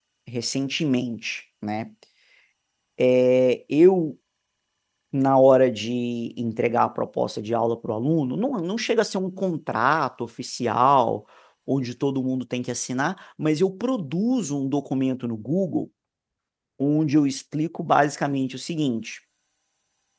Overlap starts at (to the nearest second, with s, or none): none